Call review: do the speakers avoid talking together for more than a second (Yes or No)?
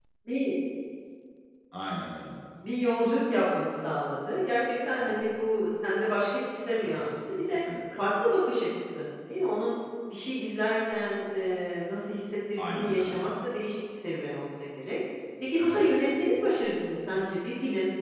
Yes